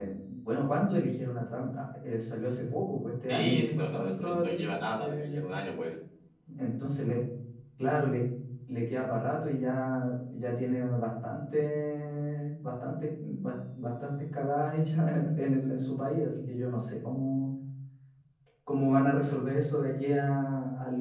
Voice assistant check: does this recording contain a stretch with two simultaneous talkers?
Yes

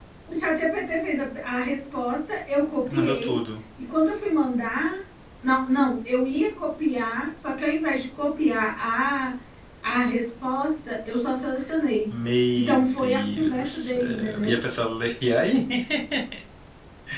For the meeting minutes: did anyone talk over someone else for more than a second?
Yes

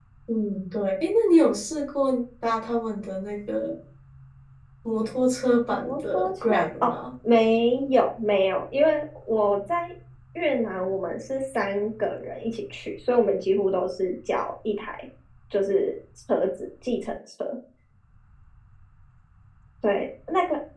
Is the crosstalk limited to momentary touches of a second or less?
No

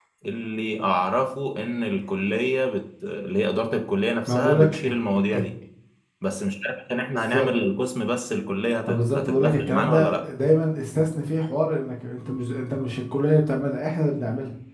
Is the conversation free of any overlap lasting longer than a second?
No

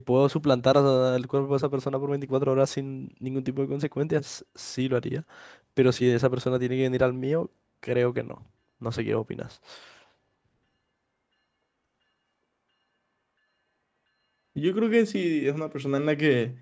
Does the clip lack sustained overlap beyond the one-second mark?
Yes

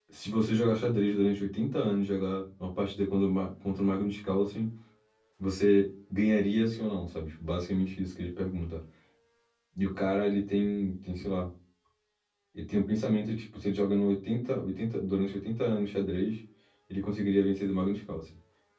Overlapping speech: No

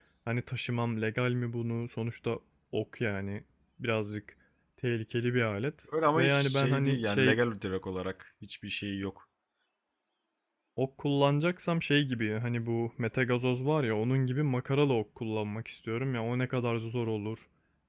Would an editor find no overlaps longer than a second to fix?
No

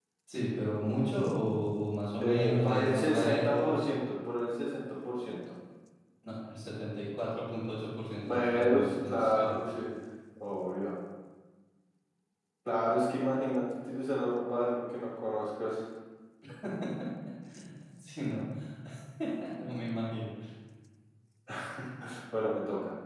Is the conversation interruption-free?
No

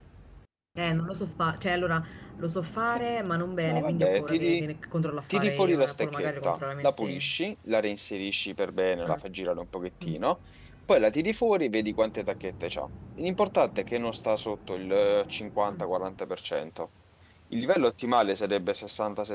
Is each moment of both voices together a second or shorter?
No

